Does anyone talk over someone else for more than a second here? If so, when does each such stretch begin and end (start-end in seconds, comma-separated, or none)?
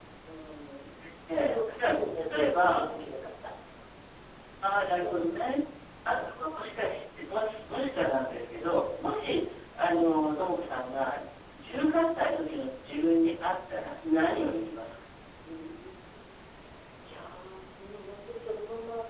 1.3-2.9